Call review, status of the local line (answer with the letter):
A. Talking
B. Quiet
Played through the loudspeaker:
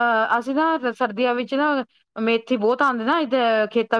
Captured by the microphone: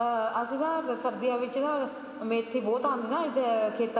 B